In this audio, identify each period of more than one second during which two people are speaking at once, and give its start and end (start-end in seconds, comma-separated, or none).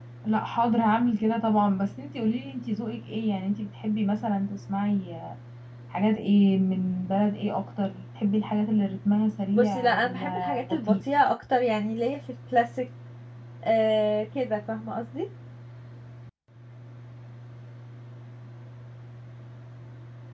9.5-11.0